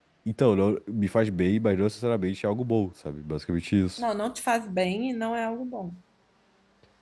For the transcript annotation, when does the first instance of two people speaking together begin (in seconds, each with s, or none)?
none